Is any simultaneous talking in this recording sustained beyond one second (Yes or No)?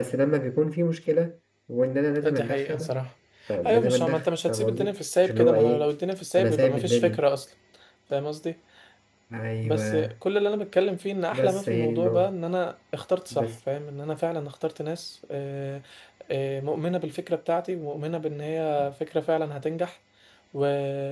Yes